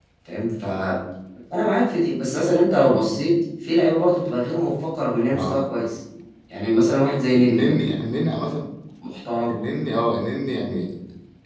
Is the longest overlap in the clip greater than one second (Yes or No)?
No